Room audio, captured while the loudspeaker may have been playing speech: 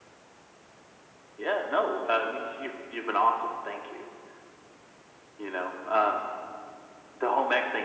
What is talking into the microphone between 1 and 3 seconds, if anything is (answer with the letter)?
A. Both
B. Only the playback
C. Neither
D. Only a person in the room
B